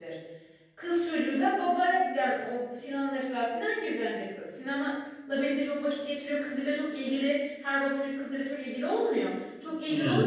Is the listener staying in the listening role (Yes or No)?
Yes